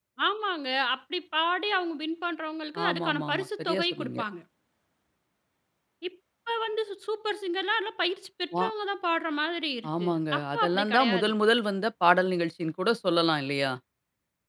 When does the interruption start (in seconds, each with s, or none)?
2.8 s